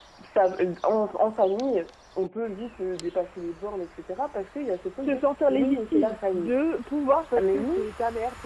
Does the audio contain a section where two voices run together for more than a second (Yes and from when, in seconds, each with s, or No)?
Yes, from 5.0 s